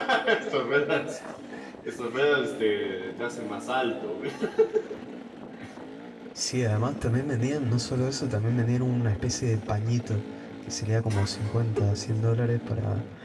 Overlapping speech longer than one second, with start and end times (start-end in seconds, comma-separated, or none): none